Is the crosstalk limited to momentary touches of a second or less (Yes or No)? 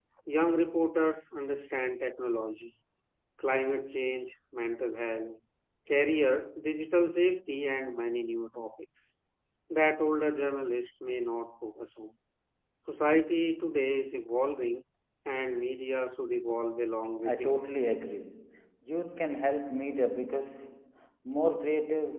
Yes